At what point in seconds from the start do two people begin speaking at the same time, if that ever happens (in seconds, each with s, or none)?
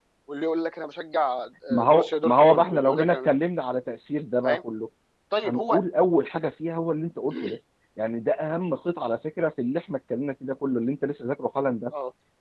1.7 s